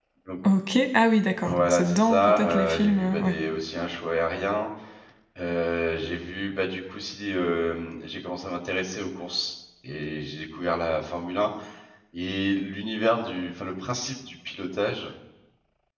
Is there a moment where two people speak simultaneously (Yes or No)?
Yes